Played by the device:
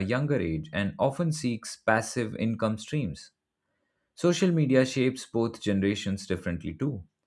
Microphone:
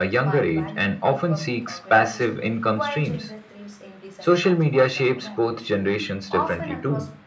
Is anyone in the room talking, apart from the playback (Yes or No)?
Yes